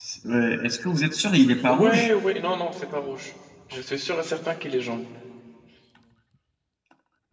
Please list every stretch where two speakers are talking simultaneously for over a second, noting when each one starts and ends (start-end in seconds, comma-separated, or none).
none